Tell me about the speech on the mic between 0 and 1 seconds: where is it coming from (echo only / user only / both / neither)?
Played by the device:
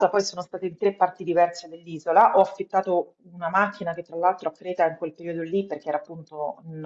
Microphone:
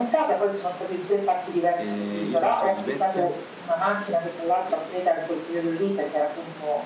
echo only